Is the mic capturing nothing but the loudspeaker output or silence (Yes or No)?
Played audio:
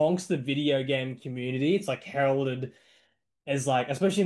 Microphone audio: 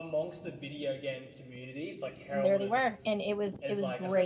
No